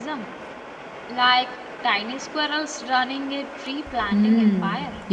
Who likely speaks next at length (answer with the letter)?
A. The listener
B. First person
A